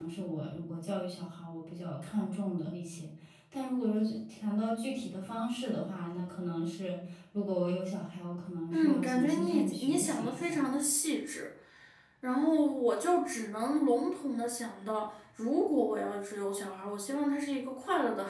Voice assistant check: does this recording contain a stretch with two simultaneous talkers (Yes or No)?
Yes